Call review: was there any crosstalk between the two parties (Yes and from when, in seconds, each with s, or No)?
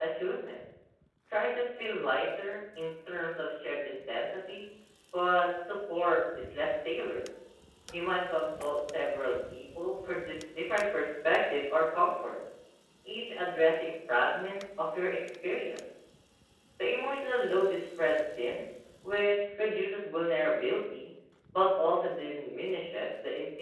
No